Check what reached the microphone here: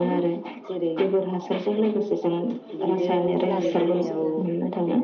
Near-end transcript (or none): बेव लाबोनानै ज जोङो